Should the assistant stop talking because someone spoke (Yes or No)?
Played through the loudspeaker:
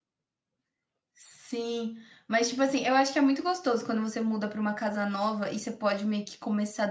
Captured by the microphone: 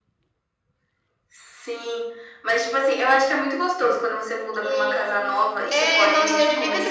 Yes